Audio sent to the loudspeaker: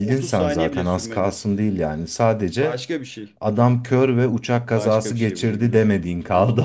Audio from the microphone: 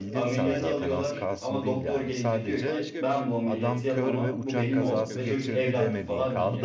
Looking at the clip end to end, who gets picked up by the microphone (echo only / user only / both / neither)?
both